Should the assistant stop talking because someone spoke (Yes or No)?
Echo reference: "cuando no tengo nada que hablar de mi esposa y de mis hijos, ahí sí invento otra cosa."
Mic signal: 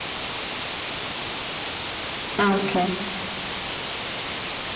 Yes